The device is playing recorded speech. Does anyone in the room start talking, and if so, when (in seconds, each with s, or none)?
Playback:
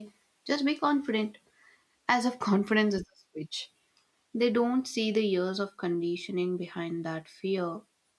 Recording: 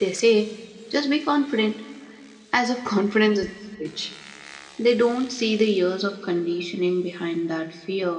none